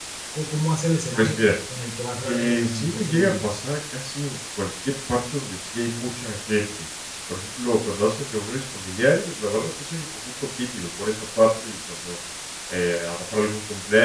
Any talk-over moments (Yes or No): Yes